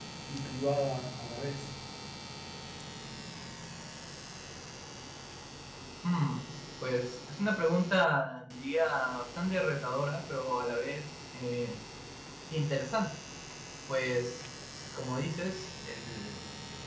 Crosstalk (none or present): none